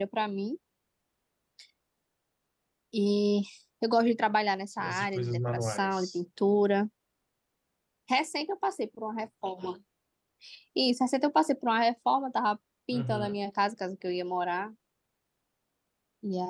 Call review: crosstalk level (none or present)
present